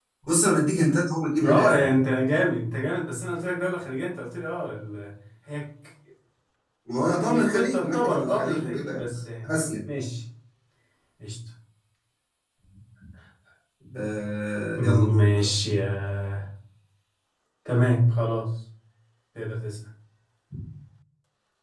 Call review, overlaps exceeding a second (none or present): present